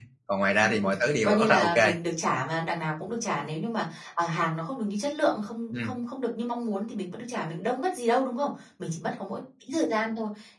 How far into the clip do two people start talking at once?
0.6 s

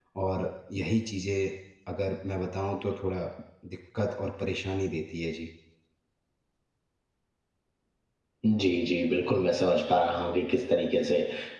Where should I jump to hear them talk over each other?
none

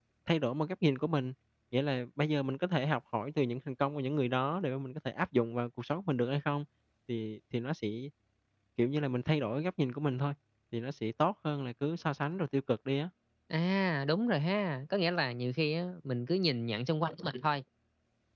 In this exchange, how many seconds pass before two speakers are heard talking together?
none

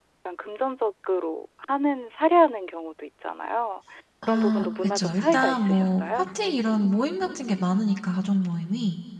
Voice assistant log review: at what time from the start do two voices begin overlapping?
4.3 s

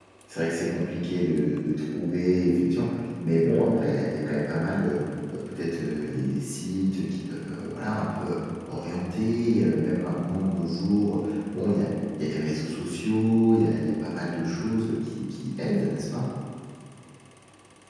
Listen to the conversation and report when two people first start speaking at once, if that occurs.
none

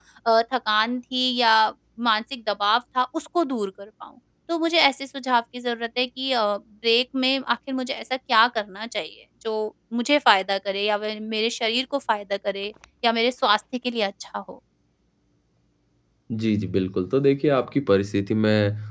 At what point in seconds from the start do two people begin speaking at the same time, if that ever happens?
none

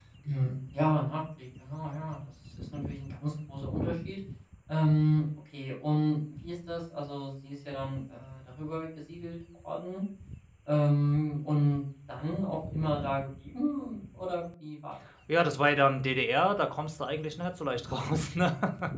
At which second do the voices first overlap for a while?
none

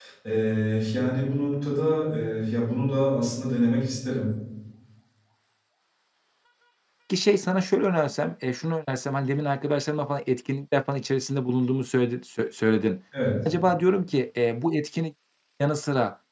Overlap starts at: none

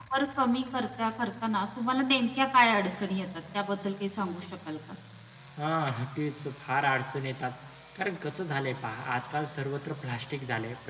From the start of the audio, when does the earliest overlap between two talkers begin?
none

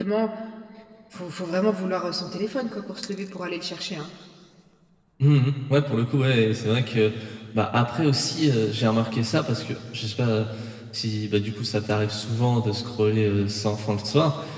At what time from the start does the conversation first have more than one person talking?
none

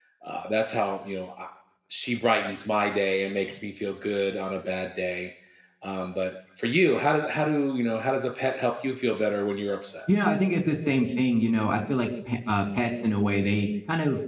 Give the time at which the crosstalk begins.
none

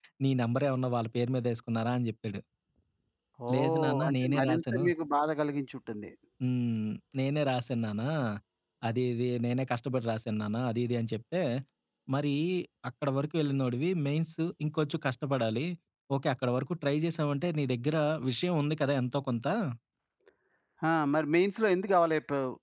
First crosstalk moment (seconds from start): 3.5 s

